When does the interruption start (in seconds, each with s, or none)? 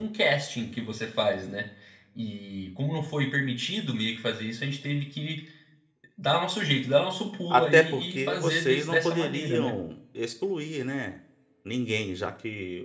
7.5 s